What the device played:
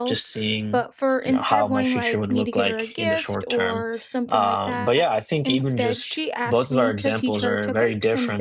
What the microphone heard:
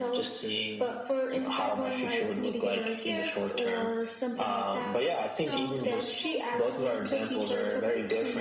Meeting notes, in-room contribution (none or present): present